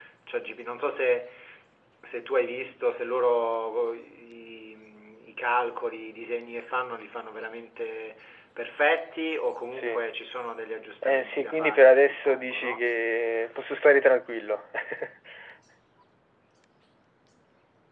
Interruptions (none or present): present